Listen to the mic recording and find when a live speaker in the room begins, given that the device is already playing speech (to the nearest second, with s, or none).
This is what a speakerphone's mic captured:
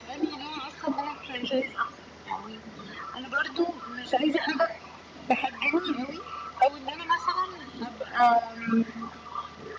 none